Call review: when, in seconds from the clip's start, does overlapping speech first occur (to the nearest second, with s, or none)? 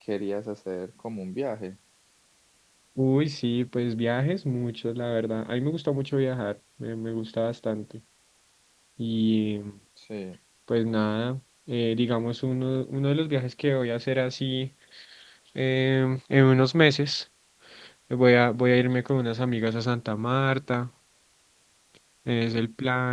none